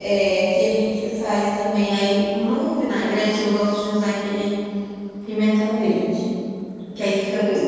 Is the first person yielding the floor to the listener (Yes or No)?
No